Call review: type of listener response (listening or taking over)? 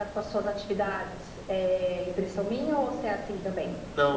taking over